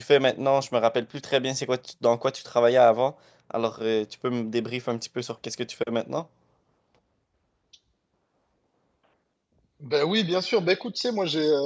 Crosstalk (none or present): none